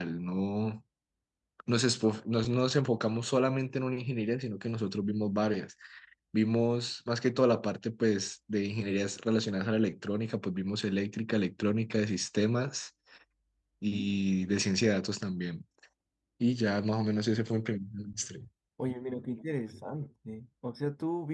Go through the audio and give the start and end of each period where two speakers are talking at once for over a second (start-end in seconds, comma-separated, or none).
none